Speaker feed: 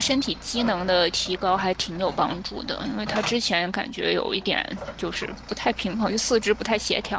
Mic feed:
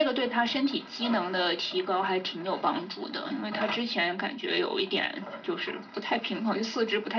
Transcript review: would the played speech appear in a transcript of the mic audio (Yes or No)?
Yes